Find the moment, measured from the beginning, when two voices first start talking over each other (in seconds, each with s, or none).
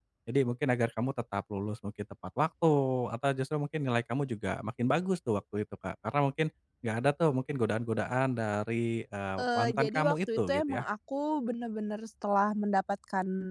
9.4 s